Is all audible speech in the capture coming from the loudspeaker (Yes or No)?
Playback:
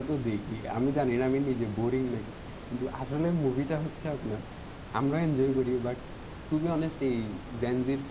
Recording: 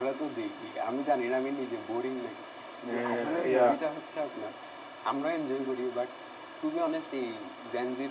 No